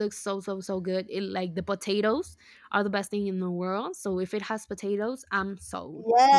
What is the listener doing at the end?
taking over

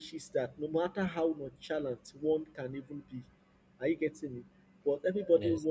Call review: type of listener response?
listening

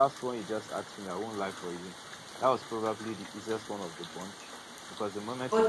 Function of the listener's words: listening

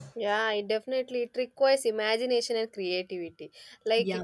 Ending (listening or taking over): listening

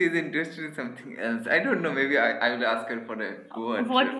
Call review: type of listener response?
taking over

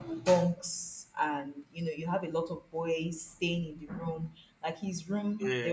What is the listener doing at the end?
listening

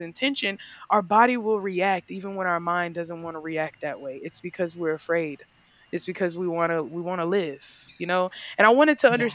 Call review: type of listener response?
listening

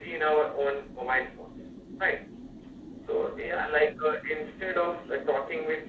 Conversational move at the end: listening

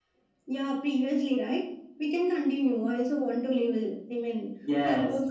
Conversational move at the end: taking over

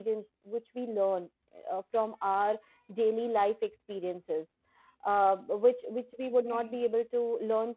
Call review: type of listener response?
listening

